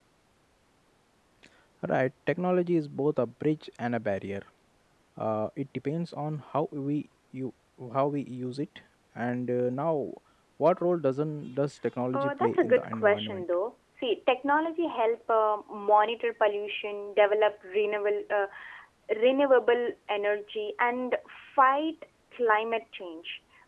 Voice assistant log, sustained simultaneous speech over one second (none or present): present